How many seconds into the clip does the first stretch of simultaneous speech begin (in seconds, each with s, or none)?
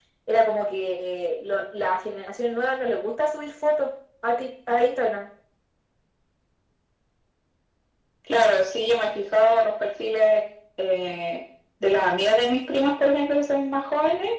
none